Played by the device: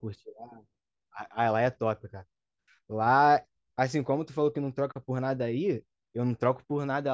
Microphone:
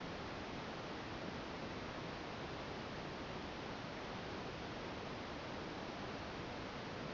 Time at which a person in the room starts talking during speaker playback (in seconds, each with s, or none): none